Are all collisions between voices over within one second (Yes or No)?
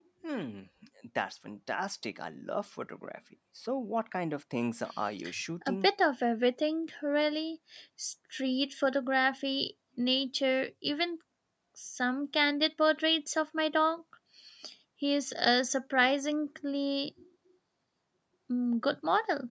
Yes